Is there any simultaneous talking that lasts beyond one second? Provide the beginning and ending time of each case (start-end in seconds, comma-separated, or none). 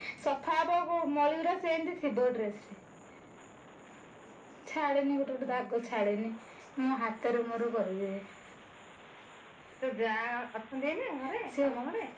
none